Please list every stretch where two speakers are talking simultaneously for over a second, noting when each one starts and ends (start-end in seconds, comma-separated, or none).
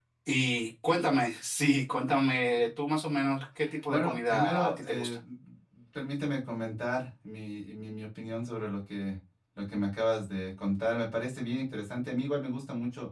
3.9-5.2